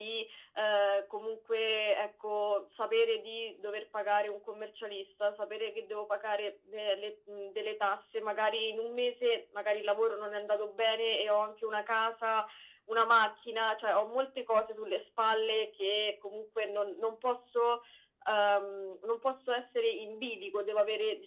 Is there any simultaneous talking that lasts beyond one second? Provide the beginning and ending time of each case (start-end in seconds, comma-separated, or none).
none